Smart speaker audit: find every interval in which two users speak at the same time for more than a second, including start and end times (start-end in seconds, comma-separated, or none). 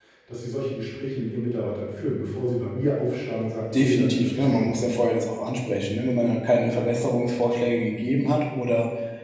3.7-5.0